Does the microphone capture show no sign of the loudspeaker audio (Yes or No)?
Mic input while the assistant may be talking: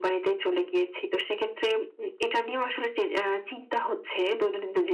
No